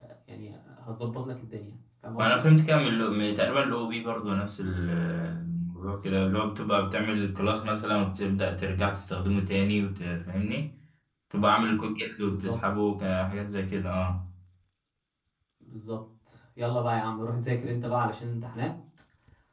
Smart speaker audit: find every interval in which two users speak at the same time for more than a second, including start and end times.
none

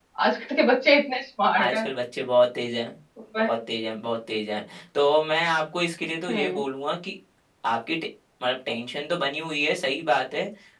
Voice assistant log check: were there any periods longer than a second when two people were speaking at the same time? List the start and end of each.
none

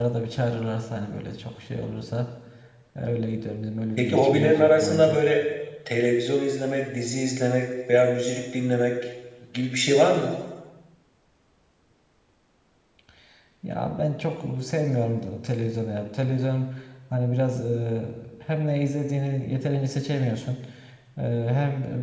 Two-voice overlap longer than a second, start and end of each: 4.0-5.2

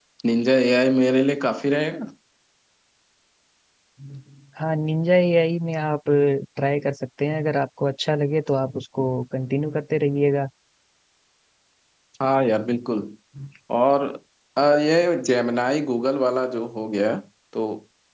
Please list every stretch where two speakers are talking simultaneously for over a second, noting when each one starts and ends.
none

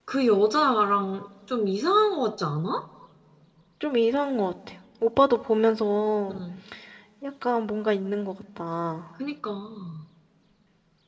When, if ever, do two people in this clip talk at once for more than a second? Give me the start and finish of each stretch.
none

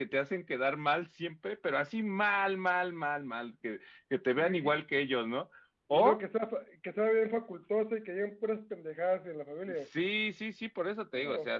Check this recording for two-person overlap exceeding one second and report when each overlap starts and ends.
none

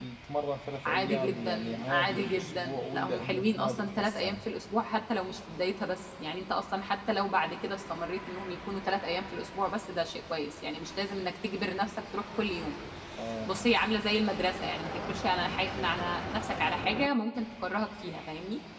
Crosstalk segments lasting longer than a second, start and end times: 0.8-4.4

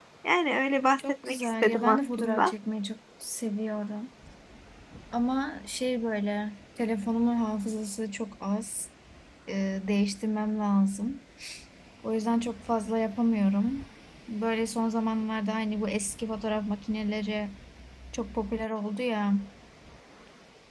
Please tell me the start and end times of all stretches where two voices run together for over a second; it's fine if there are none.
1.0-2.5

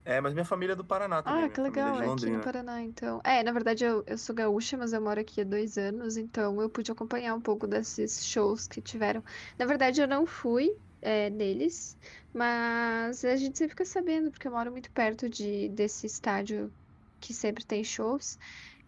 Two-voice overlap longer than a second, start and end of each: 1.2-2.5

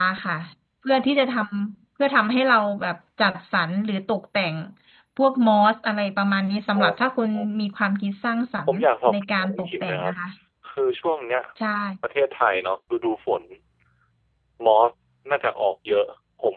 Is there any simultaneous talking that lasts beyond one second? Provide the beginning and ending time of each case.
8.7-10.1

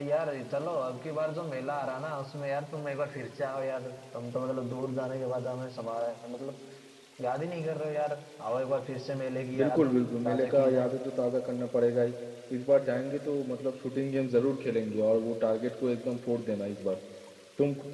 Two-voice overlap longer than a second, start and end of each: 9.6-10.9

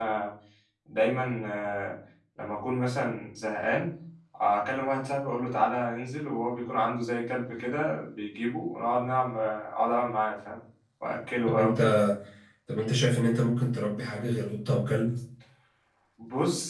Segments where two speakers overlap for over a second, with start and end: none

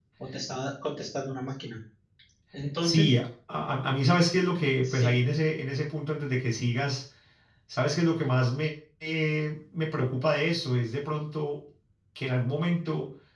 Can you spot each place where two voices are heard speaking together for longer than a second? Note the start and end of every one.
none

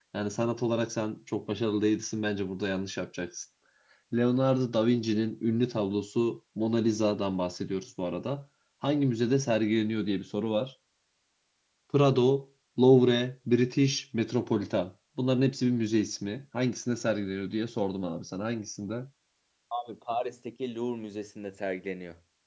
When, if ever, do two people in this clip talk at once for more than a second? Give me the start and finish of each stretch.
none

